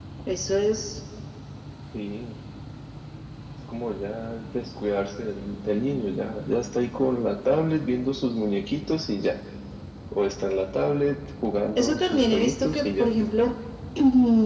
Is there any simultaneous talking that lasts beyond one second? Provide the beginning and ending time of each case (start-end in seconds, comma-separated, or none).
11.8-13.1